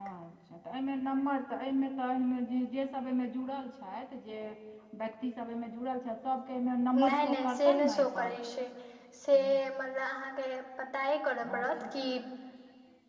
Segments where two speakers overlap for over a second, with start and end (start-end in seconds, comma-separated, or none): 7.0-8.4